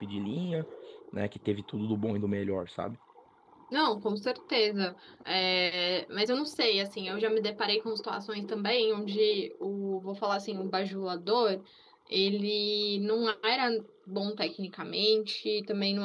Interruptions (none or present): none